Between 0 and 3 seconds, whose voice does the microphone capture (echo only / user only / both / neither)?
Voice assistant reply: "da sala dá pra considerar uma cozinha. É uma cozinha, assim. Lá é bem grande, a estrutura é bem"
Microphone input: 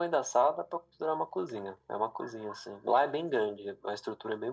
echo only